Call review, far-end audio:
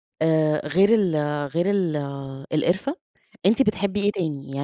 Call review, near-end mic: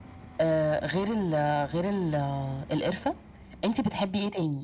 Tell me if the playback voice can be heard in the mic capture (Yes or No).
Yes